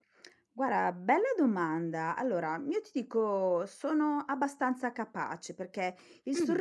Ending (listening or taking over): listening